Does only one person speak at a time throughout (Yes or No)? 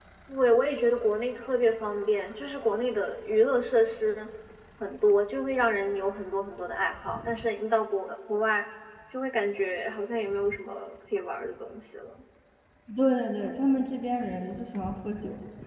Yes